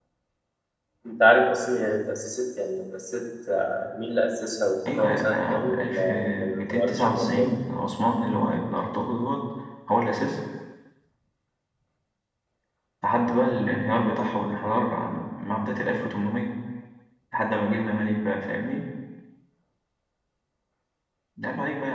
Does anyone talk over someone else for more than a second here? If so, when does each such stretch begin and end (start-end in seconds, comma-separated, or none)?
4.9-7.5